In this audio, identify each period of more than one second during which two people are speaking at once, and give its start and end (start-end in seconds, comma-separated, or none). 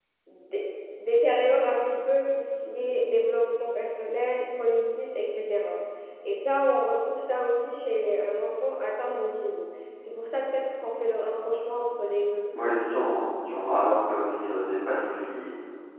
none